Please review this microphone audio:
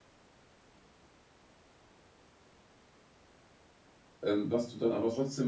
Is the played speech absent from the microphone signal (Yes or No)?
Yes